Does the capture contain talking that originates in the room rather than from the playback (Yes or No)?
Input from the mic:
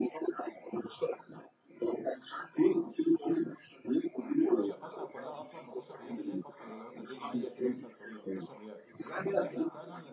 Yes